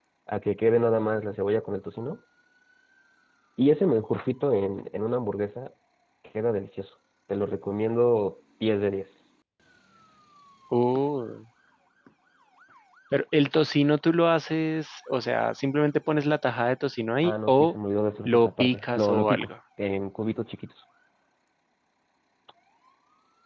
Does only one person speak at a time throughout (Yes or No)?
No